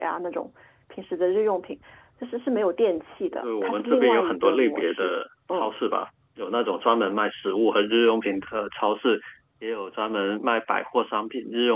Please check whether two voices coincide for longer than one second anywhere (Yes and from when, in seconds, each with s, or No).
Yes, from 3.3 s